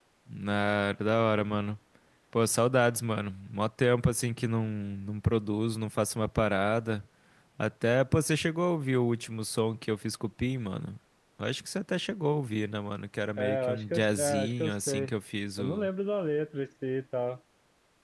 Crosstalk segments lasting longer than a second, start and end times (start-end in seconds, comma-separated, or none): 13.4-15.1